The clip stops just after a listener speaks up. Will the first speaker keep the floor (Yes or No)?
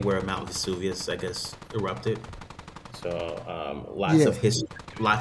Yes